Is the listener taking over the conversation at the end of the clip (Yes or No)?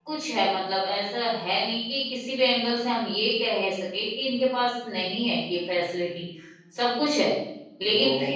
Yes